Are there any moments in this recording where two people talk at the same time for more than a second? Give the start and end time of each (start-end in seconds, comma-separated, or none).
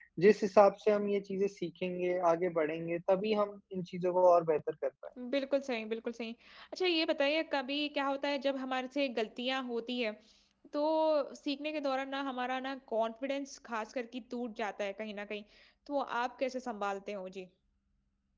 none